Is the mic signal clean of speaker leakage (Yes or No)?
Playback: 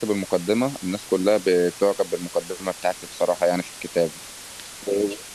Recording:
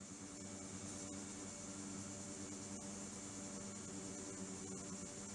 Yes